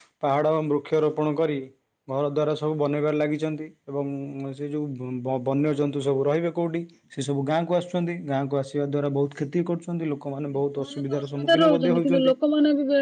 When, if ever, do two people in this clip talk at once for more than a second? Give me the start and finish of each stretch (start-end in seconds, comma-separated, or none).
10.8-12.1